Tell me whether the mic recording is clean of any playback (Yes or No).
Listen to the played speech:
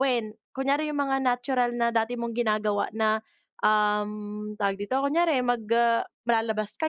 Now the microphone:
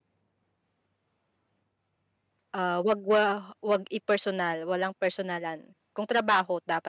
Yes